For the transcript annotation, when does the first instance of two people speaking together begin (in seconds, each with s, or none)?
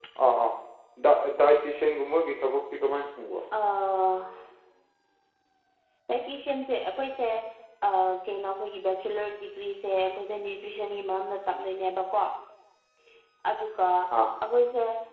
none